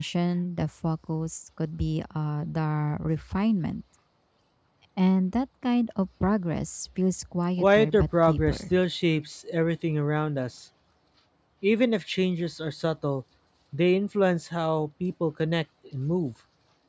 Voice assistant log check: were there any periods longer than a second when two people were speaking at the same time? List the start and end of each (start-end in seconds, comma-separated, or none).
7.6-8.8